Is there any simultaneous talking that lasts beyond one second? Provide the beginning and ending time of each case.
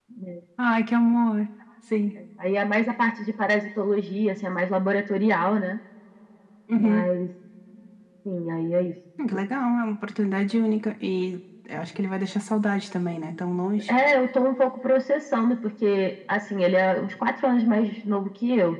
none

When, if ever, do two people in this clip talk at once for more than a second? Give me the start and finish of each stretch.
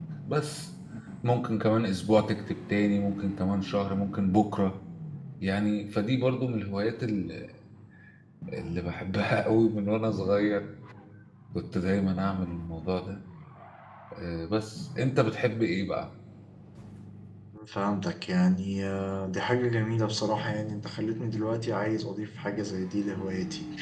none

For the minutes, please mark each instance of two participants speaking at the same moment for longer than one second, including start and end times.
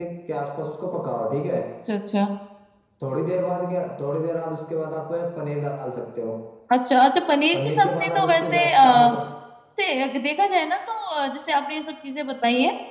7.5-9.1

